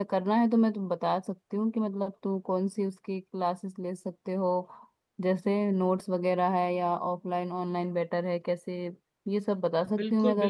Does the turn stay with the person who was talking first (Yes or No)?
No